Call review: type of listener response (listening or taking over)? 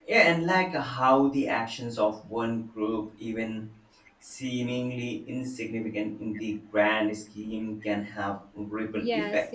taking over